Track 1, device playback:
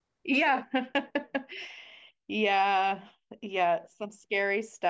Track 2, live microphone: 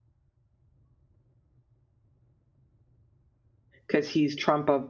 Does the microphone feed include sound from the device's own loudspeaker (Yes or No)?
No